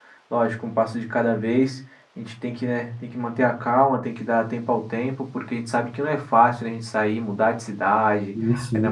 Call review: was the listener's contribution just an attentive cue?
Yes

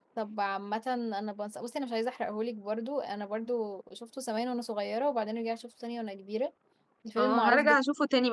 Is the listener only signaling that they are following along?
No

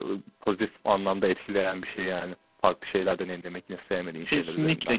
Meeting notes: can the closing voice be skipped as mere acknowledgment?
No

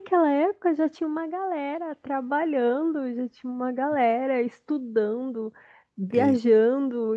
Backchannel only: Yes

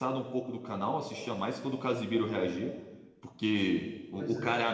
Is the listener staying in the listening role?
Yes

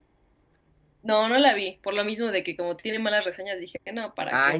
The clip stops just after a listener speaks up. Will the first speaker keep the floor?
No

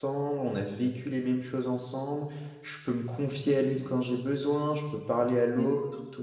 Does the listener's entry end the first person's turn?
No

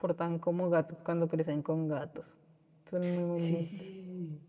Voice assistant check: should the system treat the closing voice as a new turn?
Yes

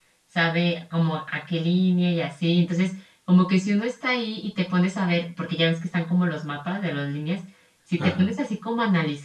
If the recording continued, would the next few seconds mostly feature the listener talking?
No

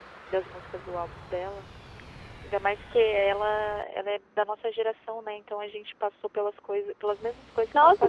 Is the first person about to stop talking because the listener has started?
Yes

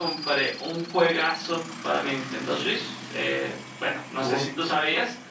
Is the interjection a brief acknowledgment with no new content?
Yes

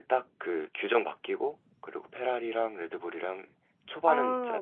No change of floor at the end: No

